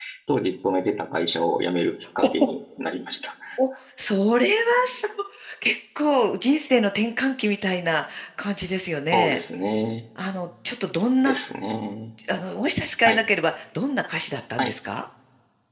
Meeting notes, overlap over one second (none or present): none